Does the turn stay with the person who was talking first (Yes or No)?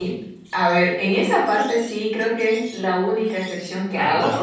Yes